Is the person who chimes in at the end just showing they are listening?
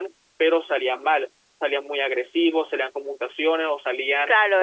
No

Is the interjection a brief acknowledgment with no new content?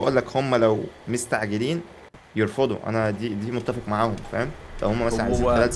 Yes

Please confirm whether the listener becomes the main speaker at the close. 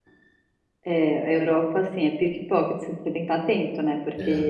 No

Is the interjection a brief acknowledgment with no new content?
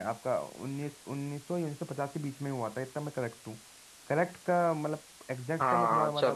No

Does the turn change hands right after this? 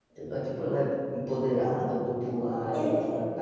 No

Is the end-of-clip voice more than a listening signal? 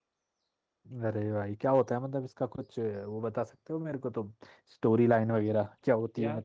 No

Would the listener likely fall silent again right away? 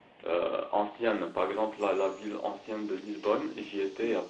Yes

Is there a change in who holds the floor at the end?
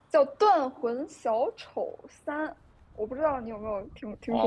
Yes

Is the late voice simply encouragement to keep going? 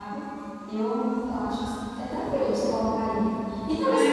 No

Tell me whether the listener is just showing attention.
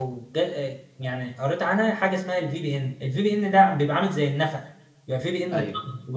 Yes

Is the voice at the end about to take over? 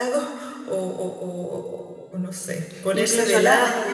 No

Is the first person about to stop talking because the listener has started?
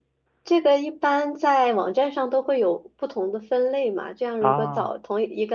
No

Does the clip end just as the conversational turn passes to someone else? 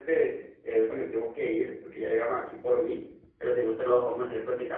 No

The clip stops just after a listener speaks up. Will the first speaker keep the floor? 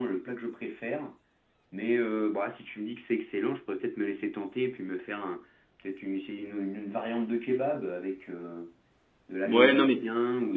No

